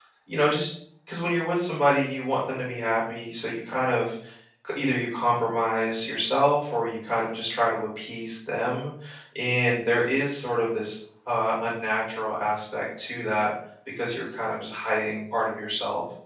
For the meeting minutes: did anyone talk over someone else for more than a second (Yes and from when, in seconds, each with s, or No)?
No